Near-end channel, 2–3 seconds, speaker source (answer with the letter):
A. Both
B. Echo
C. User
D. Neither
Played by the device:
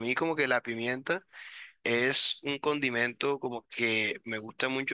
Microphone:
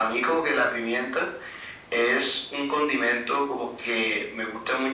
B